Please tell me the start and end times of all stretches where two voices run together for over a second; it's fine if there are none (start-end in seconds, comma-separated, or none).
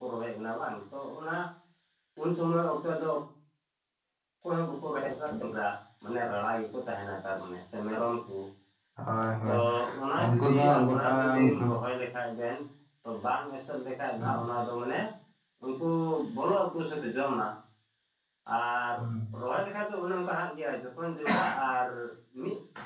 10.2-11.7